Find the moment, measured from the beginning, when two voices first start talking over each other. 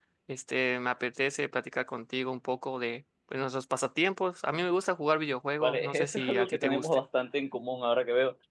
5.6 s

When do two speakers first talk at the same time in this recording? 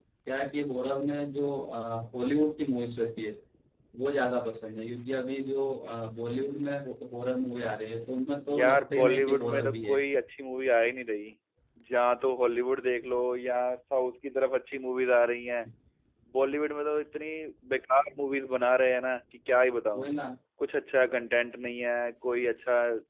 8.4 s

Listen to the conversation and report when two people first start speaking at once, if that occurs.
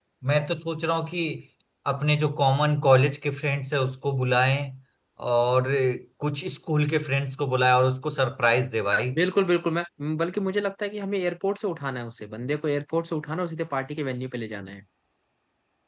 none

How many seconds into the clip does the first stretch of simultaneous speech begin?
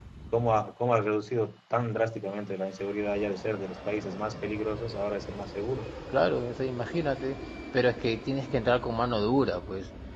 none

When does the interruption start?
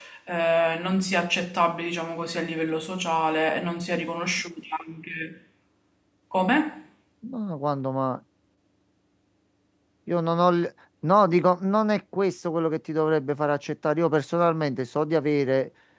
none

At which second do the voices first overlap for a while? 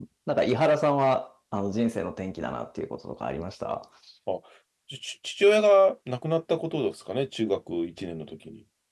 none

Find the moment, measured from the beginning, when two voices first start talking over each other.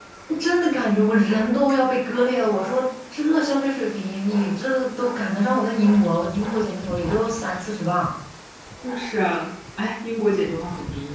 none

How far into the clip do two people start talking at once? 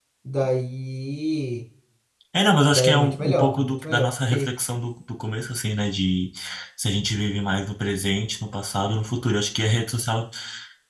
2.7 s

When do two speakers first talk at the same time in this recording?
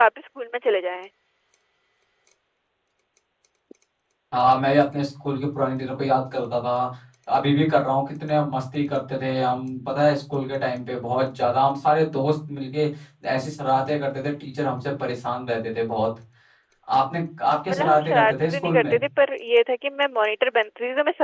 17.7 s

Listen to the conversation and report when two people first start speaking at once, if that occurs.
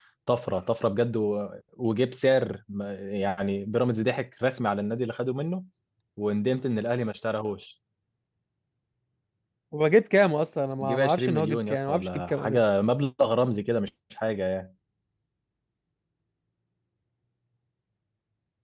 10.8 s

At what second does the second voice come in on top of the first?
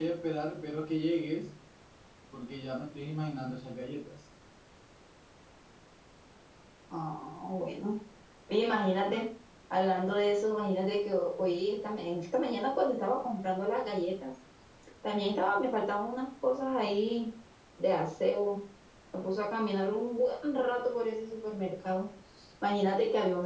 none

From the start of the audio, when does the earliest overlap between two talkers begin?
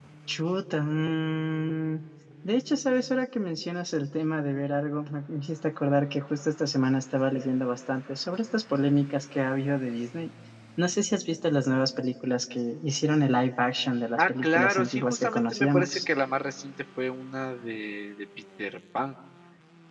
14.2 s

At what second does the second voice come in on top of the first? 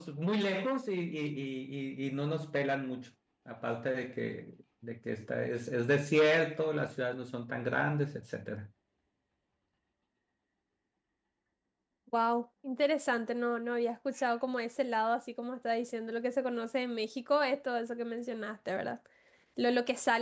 none

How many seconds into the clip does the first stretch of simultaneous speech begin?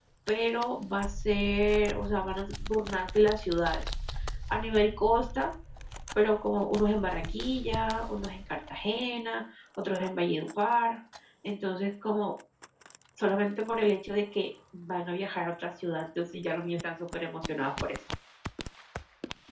none

